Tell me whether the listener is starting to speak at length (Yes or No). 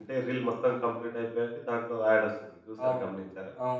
Yes